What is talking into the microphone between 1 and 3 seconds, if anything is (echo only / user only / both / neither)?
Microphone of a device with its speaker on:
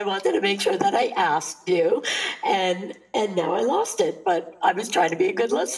echo only